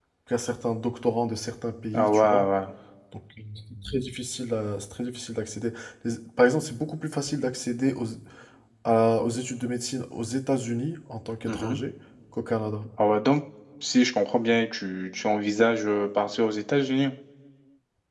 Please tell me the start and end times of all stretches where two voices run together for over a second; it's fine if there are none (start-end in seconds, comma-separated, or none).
none